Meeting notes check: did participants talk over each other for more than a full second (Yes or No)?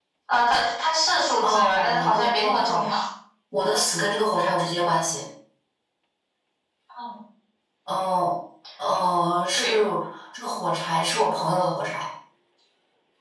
Yes